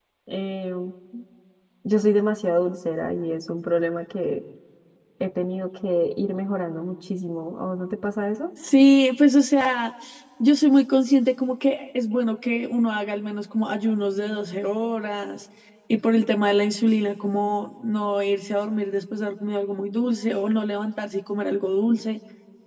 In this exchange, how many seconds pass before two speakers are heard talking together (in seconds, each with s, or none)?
none